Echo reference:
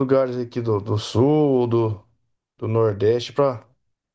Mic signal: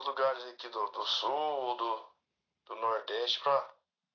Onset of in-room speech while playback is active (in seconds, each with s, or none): none